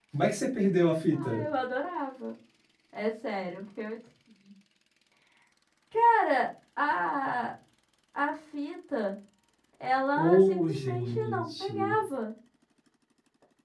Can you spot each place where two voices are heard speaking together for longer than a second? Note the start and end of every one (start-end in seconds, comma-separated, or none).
10.2-11.7